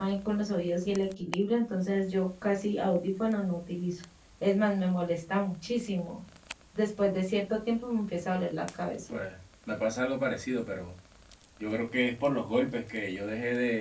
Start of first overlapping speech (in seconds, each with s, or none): none